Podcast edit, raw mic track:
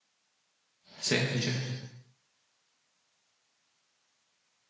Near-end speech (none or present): present